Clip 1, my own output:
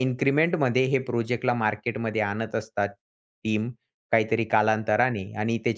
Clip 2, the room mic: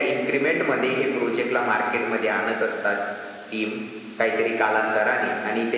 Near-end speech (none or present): none